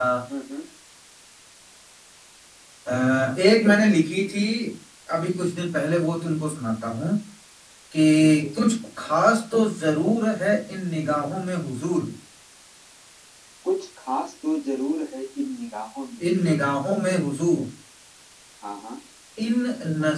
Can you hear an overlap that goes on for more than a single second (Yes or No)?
No